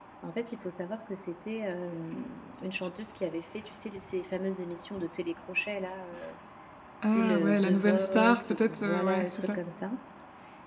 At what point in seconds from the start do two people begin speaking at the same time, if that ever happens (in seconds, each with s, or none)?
7.0 s